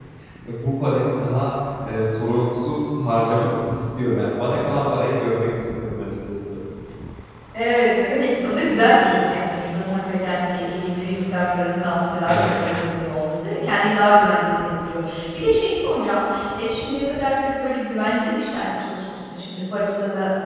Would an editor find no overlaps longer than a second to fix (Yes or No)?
Yes